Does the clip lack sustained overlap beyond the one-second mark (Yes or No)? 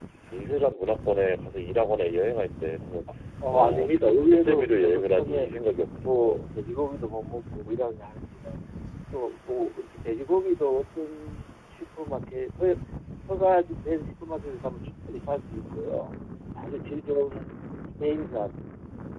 No